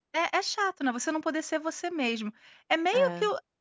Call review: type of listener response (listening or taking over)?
listening